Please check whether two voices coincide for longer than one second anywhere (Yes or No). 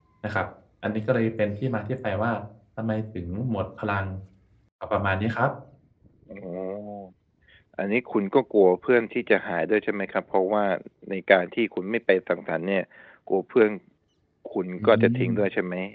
No